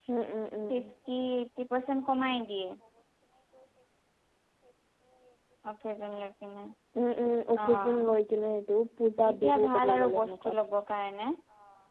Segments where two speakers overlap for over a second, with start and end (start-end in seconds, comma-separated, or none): 9.3-10.6